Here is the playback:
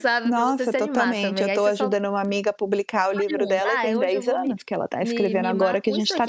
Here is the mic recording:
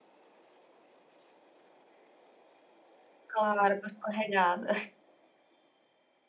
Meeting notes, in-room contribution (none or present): present